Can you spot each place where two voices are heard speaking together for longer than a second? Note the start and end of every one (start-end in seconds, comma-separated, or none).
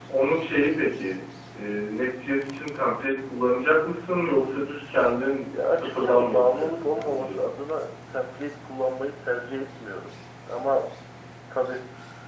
5.7-7.4